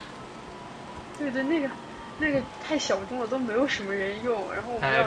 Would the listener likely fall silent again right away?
No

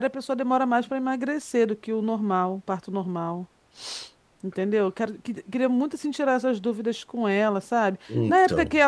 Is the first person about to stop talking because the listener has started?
No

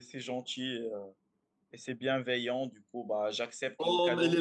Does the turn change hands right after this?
Yes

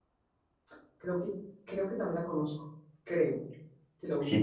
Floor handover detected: Yes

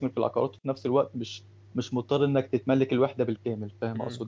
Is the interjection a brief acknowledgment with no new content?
No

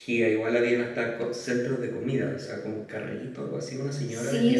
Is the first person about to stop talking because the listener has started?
Yes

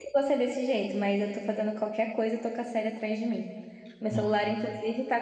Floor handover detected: No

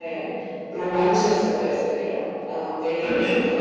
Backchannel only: No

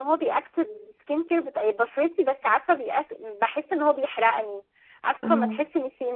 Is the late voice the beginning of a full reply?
No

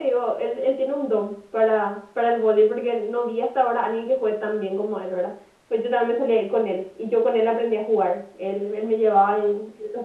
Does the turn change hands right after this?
No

